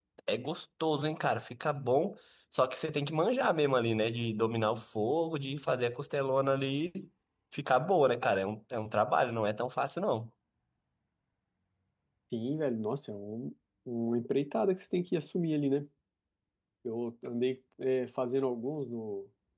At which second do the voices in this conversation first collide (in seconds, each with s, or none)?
none